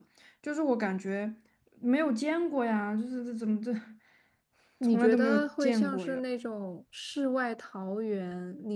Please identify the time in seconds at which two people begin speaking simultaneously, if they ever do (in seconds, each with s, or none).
4.9 s